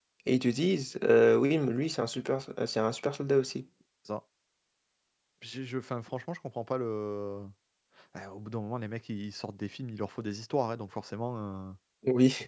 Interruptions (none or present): none